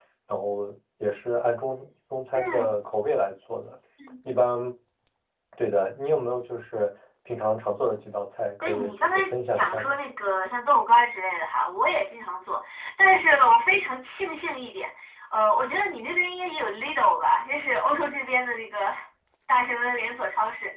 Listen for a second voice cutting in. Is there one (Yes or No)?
Yes